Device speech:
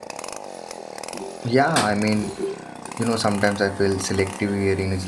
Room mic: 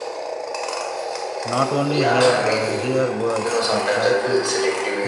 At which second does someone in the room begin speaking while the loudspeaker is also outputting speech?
1.4 s

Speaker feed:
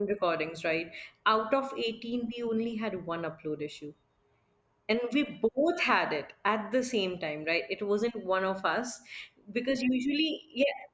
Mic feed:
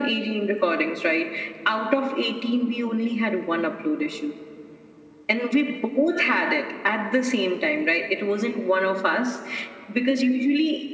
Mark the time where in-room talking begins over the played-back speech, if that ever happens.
none

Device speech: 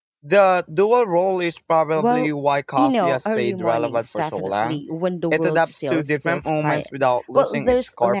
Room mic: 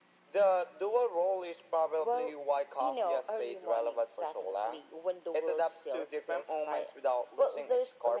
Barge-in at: none

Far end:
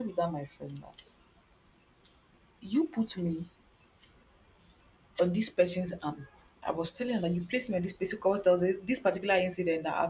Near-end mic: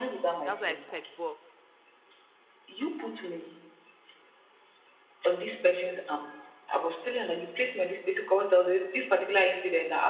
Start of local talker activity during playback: 0.4 s

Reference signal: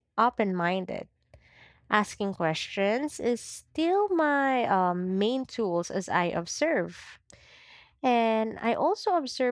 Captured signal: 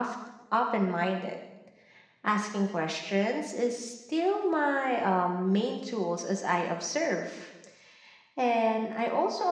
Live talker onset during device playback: none

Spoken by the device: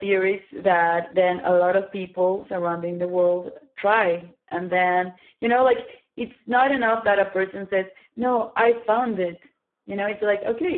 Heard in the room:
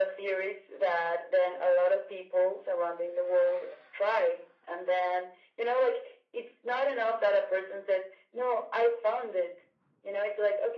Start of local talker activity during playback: none

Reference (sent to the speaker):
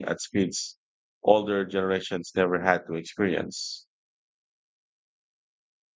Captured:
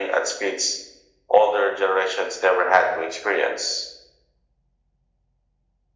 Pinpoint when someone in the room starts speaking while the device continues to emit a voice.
none

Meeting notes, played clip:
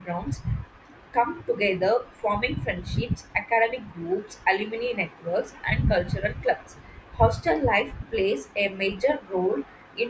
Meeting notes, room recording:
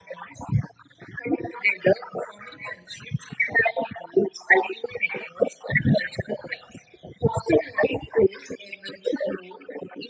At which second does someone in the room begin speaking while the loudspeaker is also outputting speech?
none

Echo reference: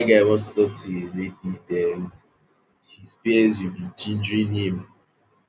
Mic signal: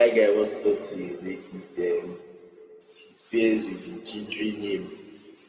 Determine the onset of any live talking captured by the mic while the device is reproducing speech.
none

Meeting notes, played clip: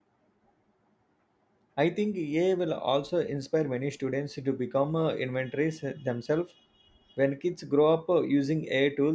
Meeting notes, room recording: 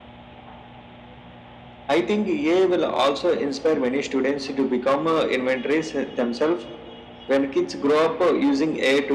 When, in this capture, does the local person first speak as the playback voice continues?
none

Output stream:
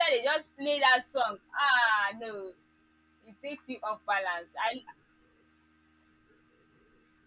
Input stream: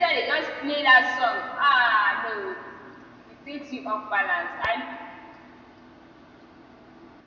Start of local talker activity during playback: none

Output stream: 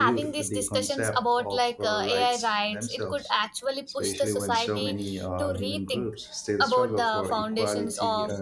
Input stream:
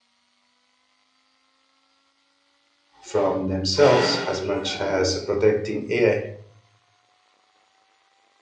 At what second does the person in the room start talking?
3.0 s

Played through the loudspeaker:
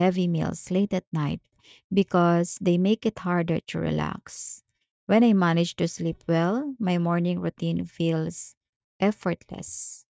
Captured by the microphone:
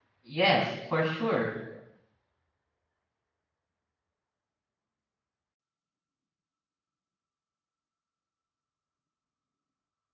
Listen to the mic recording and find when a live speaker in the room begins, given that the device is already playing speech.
0.4 s

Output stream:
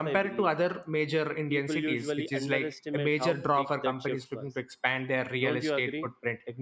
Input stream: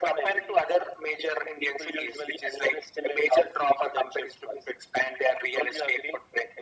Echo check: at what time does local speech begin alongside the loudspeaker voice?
none

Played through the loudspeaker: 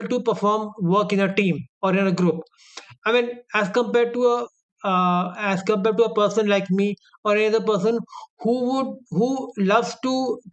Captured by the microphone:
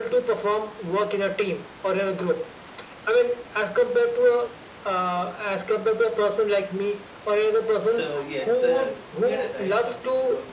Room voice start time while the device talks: 7.5 s

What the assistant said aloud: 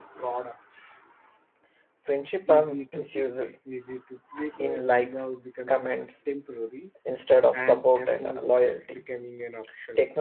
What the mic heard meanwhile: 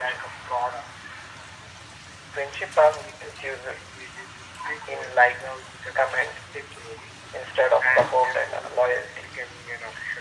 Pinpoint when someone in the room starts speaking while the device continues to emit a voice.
none

